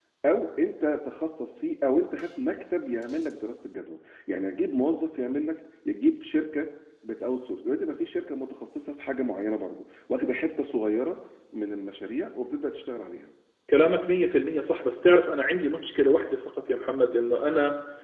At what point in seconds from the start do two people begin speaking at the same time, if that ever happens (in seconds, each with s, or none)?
none